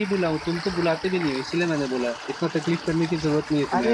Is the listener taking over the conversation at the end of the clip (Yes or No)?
Yes